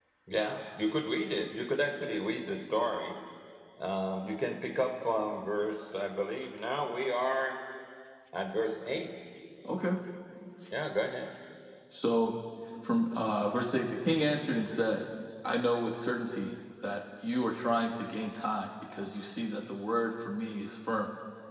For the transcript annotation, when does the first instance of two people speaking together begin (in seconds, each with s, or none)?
none